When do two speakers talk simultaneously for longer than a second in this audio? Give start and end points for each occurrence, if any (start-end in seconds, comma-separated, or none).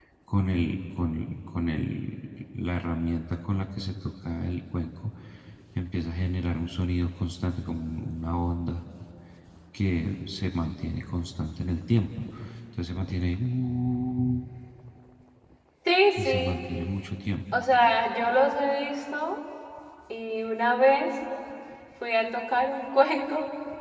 none